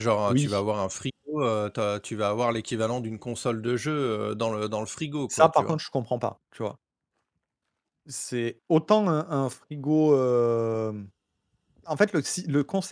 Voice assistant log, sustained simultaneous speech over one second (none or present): none